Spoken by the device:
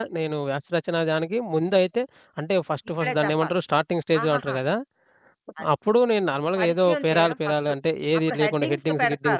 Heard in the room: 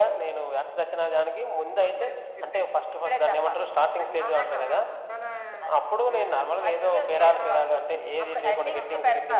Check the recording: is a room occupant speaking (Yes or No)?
Yes